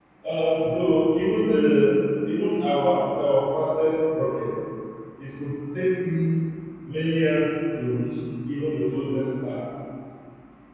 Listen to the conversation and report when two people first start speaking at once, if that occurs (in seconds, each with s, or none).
none